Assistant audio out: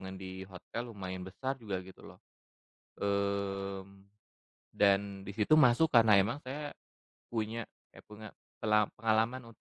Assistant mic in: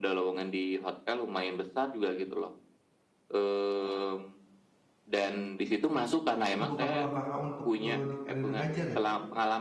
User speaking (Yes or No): Yes